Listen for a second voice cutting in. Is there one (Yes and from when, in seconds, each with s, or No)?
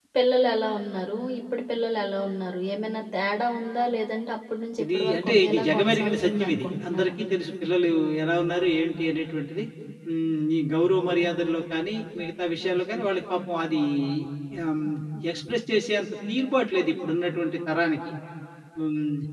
Yes, from 4.8 s